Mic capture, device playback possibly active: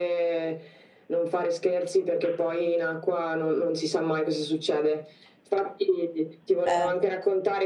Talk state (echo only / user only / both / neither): both